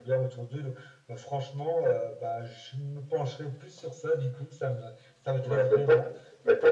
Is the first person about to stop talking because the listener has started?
Yes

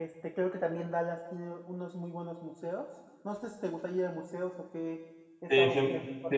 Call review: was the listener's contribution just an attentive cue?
No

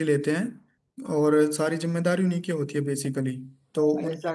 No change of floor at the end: No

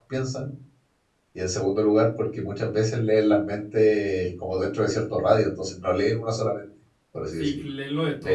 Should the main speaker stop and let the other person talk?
Yes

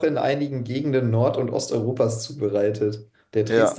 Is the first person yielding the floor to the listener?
No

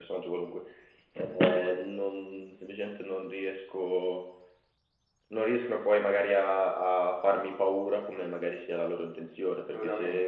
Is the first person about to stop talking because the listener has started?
No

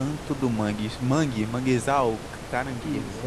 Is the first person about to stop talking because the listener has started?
Yes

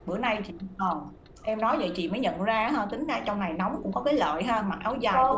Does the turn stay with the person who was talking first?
No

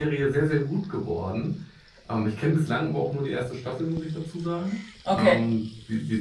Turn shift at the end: No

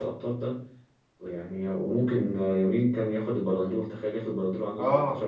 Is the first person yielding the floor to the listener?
Yes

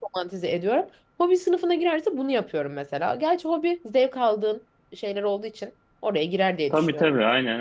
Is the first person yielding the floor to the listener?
Yes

